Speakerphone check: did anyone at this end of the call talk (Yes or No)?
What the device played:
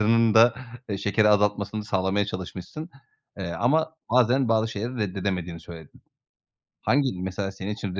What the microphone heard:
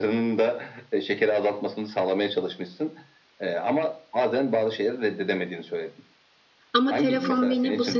Yes